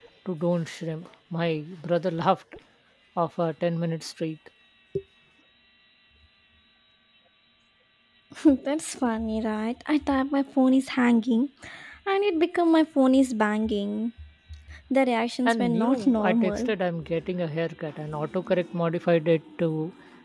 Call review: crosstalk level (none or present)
present